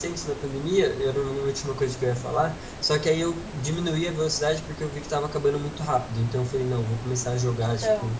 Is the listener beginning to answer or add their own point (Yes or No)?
No